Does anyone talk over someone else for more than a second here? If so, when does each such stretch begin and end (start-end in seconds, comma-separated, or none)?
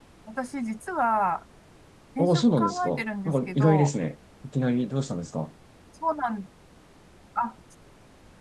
2.2-4.0